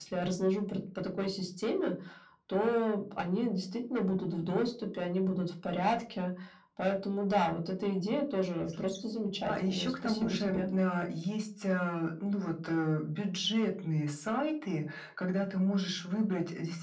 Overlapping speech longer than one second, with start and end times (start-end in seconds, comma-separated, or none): 9.5-10.7